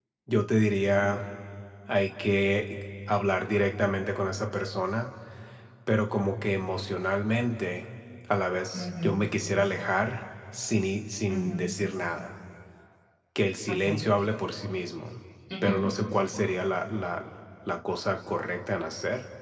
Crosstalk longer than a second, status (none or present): none